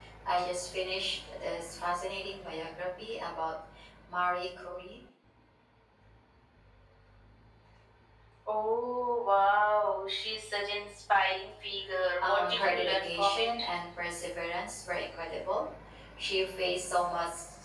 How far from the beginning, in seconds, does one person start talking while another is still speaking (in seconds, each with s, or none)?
12.2 s